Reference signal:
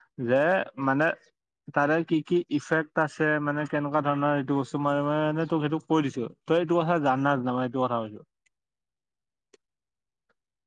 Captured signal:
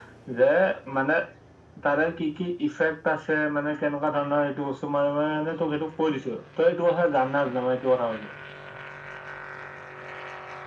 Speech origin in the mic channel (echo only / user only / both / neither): echo only